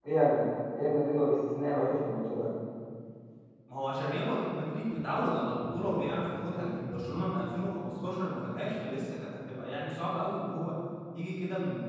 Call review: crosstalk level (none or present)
none